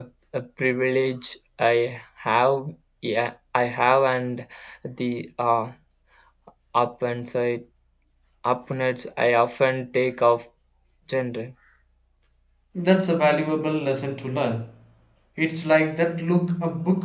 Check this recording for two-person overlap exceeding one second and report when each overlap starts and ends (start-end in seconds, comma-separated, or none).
none